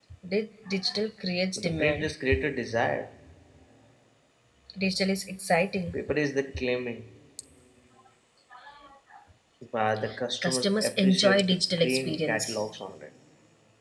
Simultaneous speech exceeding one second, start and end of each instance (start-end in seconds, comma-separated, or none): 10.4-12.6